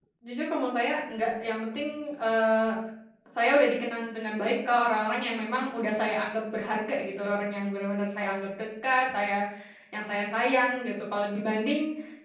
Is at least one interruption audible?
No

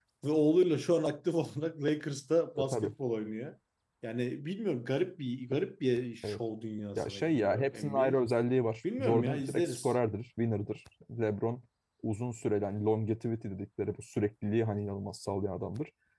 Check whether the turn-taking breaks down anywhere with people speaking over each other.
Yes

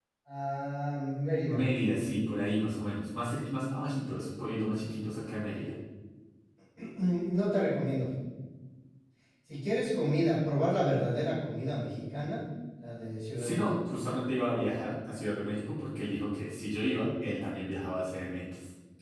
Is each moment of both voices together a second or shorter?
Yes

